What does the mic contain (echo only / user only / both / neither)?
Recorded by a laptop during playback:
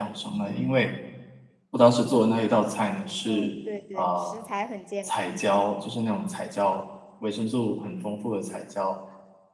both